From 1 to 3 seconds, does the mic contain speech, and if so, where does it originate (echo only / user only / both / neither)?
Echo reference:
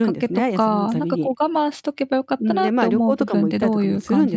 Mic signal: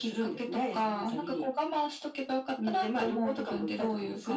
echo only